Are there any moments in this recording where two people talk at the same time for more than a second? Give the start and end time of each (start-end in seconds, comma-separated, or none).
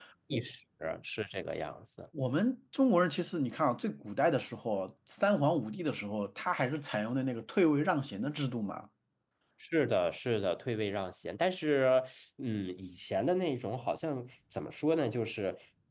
none